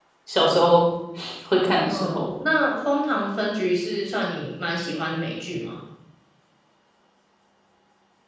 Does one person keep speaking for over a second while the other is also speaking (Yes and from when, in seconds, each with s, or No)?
No